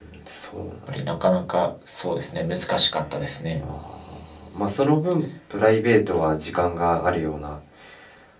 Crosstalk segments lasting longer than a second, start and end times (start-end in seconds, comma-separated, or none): none